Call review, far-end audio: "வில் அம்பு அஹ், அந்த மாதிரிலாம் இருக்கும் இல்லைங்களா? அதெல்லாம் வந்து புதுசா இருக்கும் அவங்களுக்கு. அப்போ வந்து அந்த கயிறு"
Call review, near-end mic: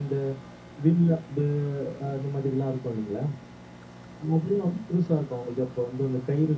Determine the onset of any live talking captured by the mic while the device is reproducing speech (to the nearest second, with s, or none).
none